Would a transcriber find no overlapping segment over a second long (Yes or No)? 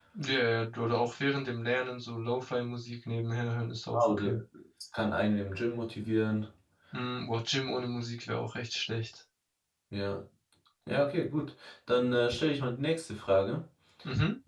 Yes